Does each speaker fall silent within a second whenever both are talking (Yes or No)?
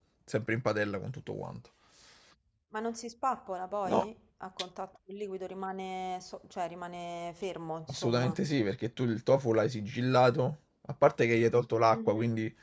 Yes